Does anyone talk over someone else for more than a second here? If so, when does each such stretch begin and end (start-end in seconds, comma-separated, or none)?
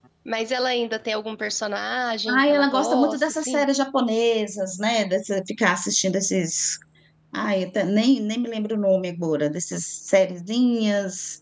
2.3-3.6